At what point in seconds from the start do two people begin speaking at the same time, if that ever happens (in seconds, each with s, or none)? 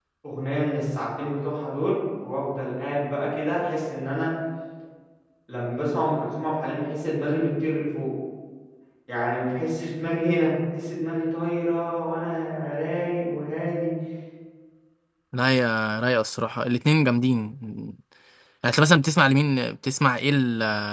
none